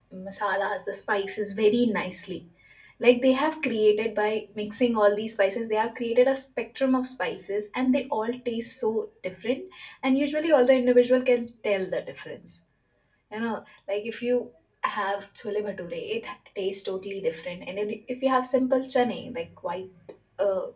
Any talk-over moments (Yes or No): No